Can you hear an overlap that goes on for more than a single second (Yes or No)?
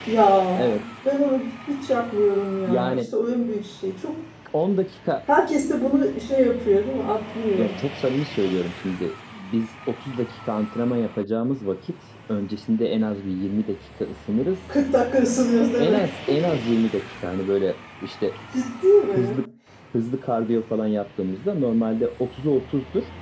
No